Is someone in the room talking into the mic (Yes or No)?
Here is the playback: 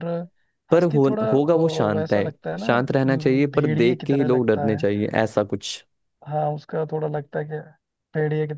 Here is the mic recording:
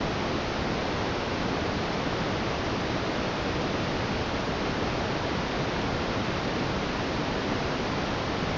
No